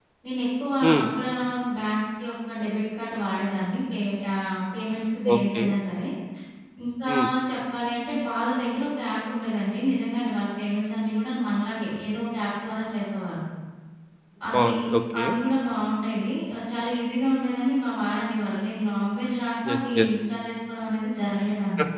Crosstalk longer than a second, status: none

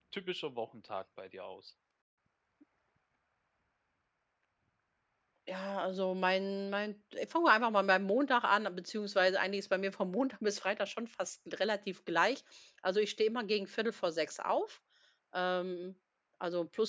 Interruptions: none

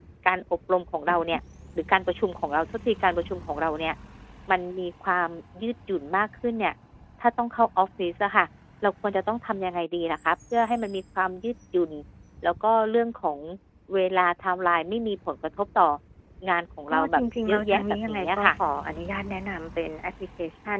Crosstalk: present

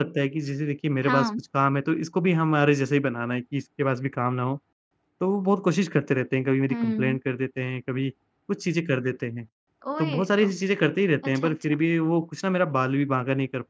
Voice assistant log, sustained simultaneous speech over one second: none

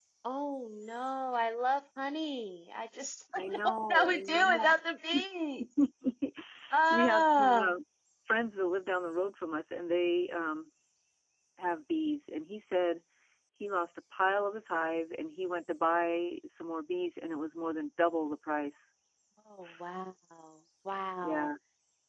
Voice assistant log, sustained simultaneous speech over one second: present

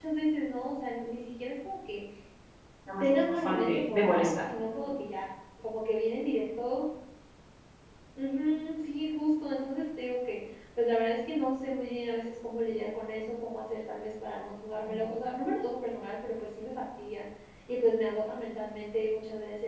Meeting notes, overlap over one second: present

